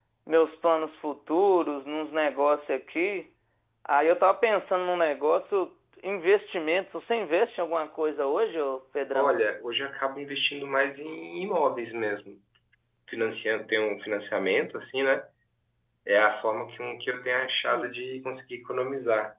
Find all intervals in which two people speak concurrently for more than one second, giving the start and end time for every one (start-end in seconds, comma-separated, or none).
none